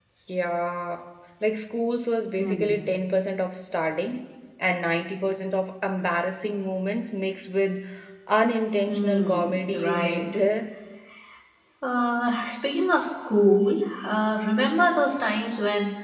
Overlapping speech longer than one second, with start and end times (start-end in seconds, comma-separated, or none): 8.9-10.3